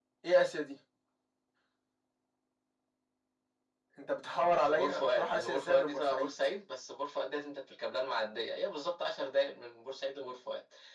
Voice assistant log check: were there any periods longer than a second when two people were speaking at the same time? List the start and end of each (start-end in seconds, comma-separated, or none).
4.4-6.3